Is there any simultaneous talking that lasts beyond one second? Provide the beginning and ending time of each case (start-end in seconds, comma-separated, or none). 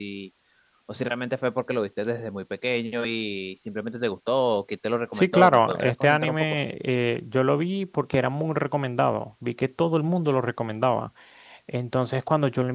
5.1-6.6